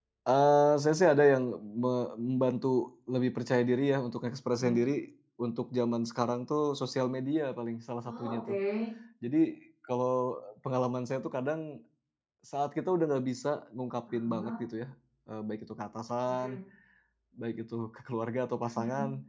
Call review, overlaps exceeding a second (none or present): none